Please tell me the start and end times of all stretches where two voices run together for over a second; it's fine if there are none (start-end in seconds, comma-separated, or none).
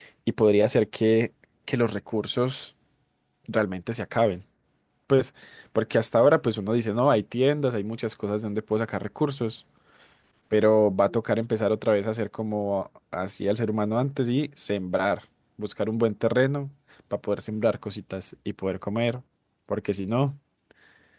none